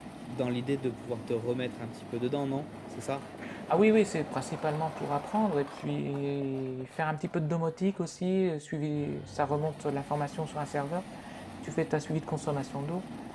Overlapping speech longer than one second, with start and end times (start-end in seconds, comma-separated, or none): none